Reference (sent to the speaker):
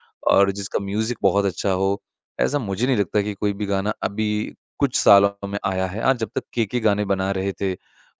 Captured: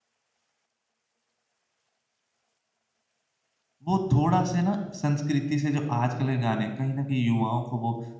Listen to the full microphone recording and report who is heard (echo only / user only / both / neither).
user only